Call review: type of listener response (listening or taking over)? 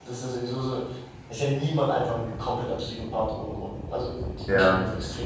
listening